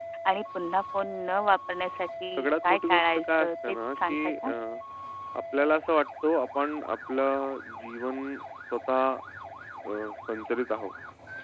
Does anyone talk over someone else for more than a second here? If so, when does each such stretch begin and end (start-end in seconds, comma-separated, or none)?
2.4-4.5